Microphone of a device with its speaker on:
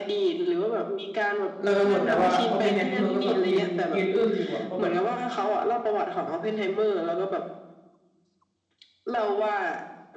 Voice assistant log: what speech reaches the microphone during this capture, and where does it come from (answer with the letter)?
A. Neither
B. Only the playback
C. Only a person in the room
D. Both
D